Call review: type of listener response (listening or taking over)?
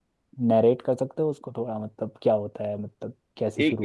taking over